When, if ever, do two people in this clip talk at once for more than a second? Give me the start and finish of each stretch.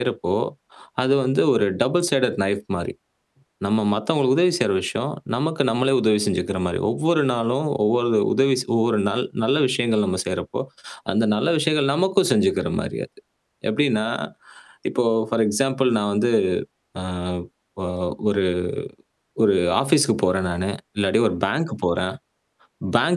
none

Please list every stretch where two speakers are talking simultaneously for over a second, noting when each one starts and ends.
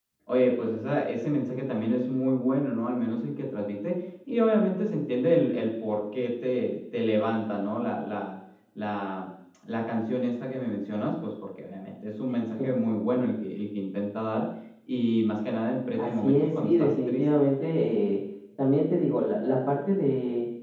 16.0-17.3

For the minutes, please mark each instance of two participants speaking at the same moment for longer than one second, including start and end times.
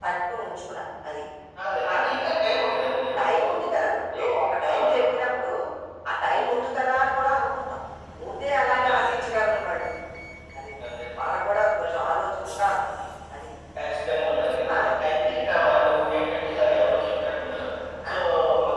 none

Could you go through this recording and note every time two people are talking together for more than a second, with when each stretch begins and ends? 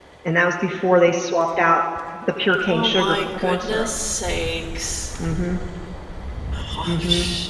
2.6-3.9

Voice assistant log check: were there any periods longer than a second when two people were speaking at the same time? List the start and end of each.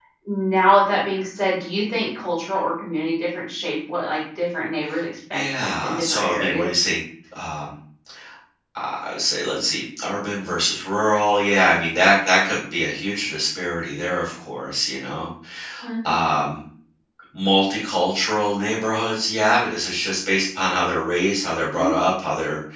5.3-6.7

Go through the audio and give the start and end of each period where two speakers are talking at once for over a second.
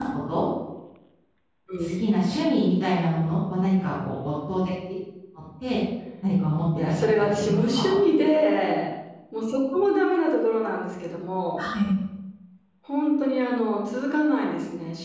6.8-8.0

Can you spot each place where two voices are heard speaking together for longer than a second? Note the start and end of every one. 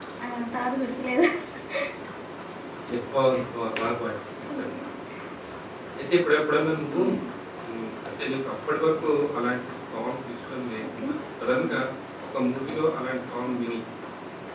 none

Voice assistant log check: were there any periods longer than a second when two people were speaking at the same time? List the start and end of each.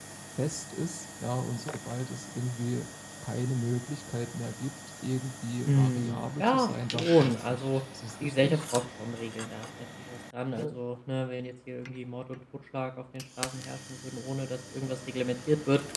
5.7-7.7

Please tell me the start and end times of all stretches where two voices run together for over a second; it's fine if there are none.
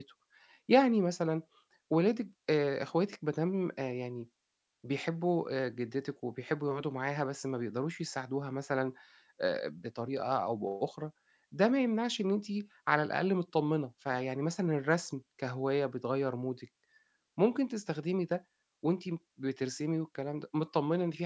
none

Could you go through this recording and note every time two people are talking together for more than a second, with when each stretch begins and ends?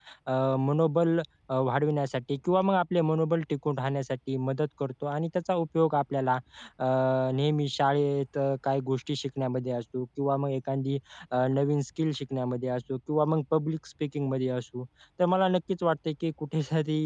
none

